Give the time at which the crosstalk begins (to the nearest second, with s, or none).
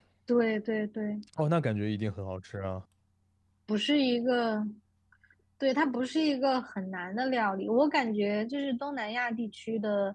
none